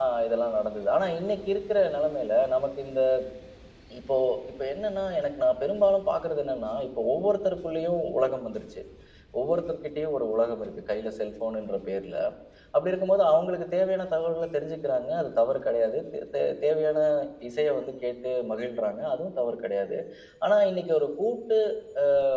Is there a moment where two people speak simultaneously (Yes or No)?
No